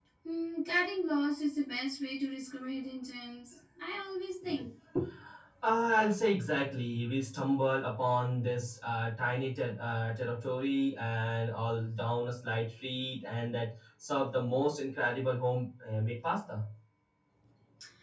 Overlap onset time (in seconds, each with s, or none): none